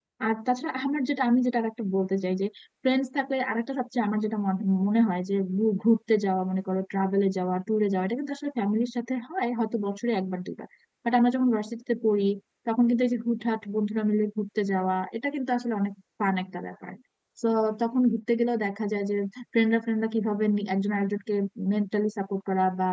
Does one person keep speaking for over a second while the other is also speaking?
No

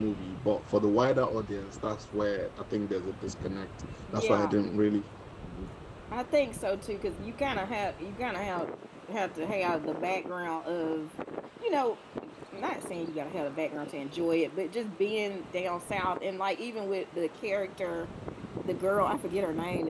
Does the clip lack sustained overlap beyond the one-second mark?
Yes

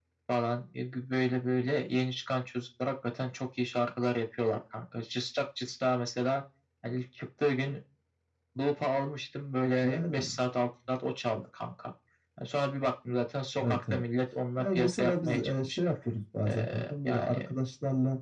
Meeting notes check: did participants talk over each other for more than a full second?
Yes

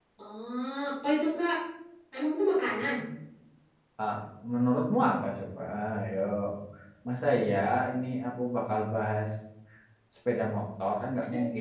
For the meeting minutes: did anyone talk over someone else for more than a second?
No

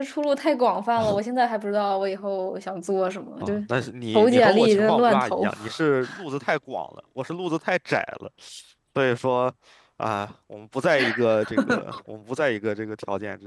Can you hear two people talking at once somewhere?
Yes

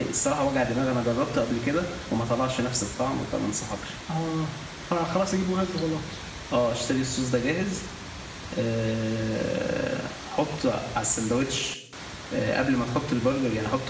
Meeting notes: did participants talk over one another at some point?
No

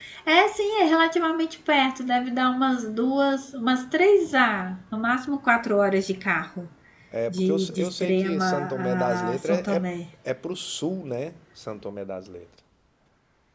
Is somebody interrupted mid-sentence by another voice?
Yes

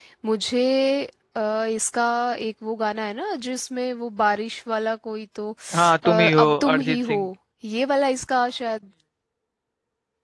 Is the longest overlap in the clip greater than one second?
Yes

